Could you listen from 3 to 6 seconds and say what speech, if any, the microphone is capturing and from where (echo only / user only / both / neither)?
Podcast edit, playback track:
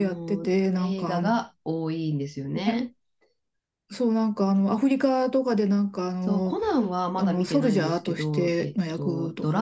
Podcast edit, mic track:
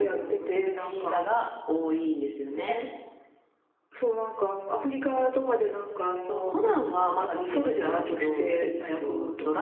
echo only